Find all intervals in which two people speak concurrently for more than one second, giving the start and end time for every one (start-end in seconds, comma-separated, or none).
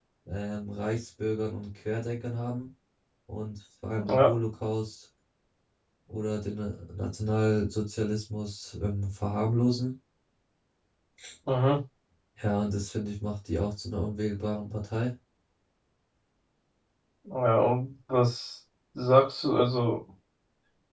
none